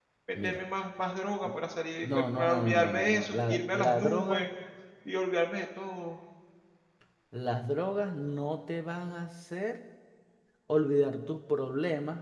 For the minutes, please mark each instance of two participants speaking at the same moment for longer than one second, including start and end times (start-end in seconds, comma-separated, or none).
2.1-4.4